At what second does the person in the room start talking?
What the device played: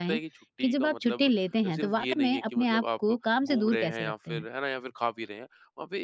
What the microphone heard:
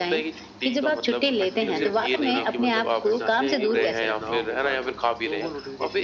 1 s

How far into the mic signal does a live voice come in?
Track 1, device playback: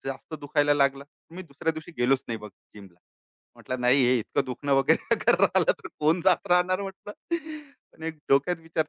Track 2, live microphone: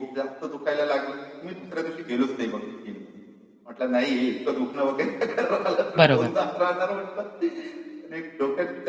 6 s

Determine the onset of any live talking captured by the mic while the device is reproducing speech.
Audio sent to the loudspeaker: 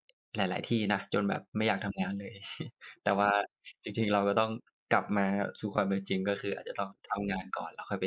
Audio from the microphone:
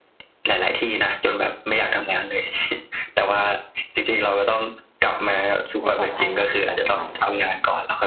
6 s

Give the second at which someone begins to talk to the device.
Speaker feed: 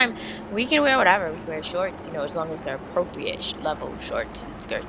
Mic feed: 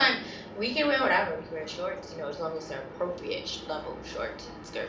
none

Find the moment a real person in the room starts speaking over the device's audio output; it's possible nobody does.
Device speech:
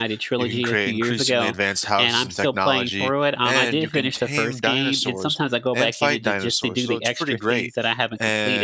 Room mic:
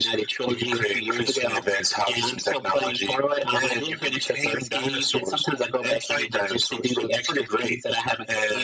none

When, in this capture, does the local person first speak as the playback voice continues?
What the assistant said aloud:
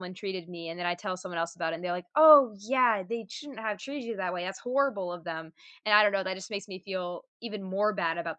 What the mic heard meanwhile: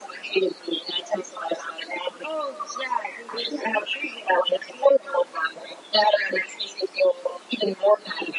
none

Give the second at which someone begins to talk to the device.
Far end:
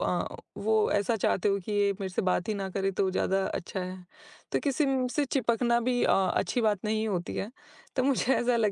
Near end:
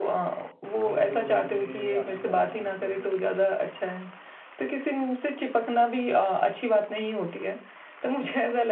1 s

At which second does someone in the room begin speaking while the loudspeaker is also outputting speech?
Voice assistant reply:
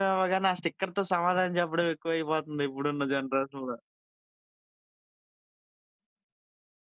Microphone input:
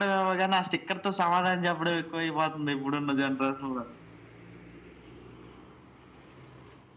none

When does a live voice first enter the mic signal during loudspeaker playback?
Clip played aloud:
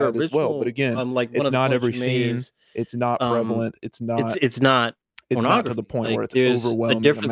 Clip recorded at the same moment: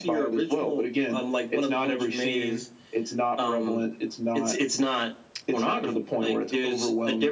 none

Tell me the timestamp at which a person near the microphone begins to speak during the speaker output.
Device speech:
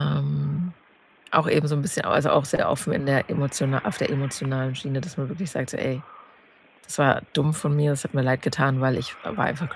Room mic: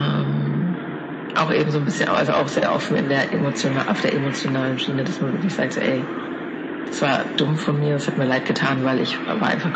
none

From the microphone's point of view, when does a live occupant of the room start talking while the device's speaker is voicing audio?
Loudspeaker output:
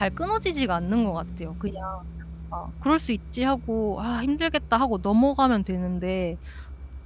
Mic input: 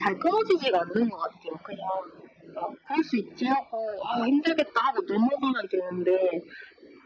none

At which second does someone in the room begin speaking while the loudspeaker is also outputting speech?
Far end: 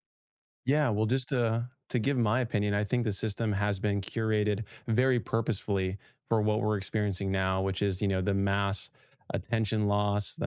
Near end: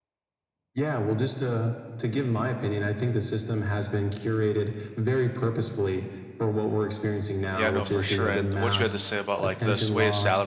8 s

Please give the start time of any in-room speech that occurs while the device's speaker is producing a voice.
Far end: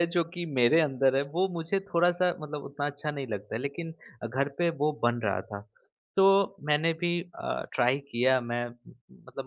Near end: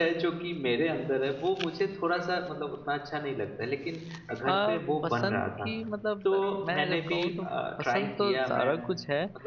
4 s

